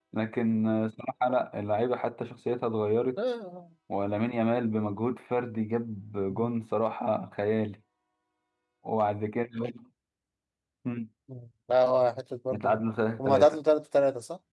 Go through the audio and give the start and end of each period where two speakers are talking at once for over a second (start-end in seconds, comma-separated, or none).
none